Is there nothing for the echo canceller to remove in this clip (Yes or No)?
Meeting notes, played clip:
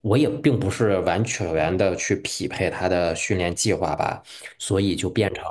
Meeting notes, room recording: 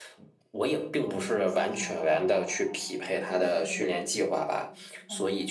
No